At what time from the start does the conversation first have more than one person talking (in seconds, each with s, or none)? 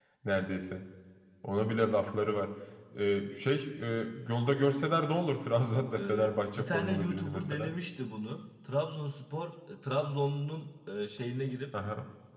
6.0 s